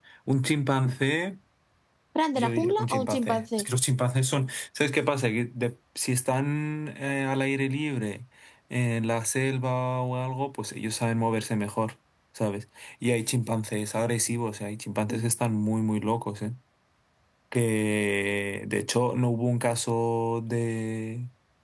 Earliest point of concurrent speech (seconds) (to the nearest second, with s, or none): 2 s